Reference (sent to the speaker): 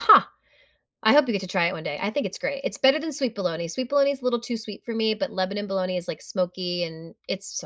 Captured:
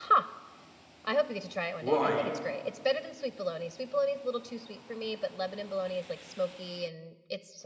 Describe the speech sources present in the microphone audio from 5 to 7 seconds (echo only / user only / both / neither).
echo only